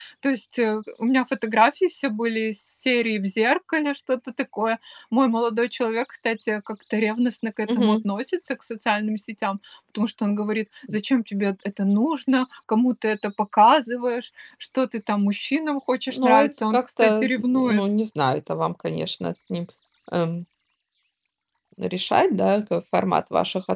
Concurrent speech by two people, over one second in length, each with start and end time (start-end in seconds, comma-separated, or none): 16.1-17.8